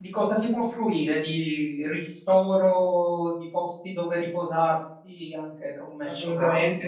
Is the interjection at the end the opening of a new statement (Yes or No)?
Yes